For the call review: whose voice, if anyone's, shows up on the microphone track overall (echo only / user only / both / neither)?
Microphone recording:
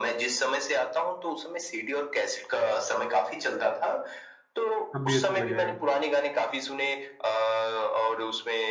both